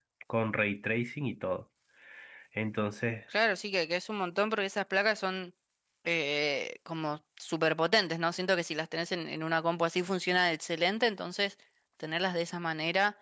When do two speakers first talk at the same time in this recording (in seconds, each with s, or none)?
none